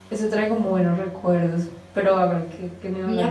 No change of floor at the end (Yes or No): No